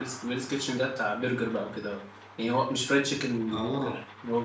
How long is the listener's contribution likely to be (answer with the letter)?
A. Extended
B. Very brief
B